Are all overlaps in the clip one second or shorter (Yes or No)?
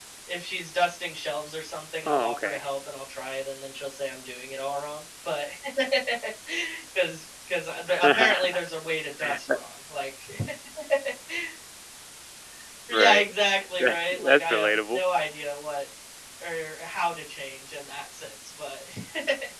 No